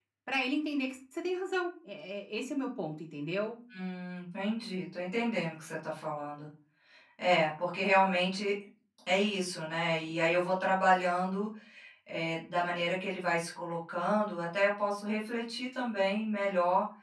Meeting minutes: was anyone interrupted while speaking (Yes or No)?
No